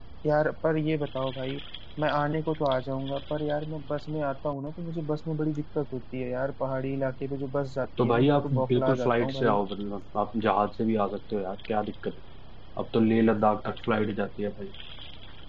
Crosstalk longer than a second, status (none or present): present